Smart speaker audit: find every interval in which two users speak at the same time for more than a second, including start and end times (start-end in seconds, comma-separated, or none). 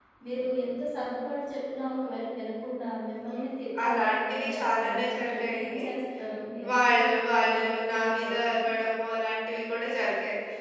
3.9-5.8, 6.7-8.7